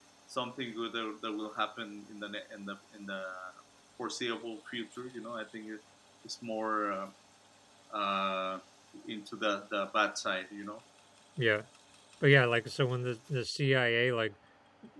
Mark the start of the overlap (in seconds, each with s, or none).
none